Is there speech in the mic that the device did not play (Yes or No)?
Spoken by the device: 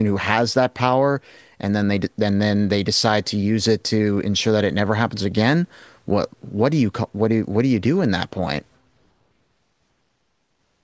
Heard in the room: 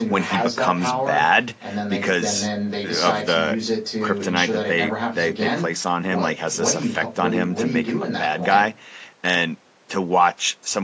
Yes